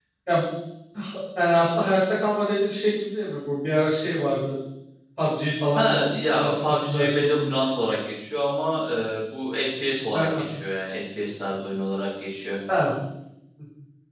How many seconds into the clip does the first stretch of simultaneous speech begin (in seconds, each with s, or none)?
5.8 s